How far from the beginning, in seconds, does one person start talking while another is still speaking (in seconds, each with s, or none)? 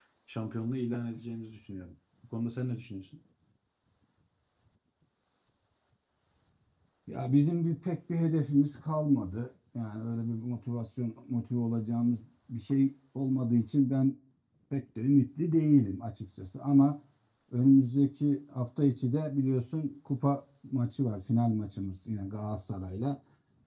none